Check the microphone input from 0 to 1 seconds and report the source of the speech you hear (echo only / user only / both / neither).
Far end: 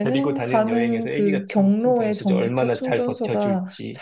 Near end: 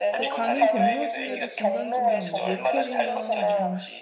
both